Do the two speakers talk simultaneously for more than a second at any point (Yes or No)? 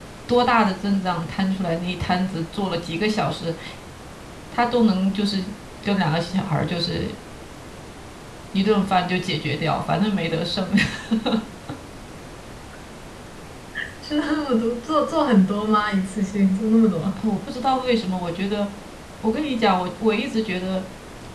No